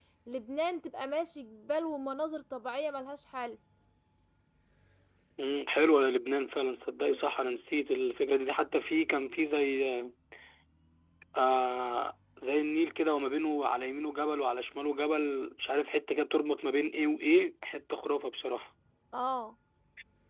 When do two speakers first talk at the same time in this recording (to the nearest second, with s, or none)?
none